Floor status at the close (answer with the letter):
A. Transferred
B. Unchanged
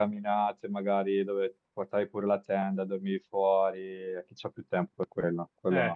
A